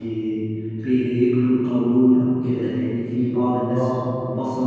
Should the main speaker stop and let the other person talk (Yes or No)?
No